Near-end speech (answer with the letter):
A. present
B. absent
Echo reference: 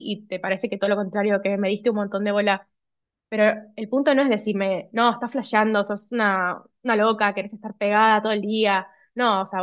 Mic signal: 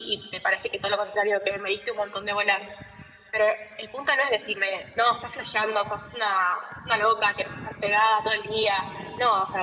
B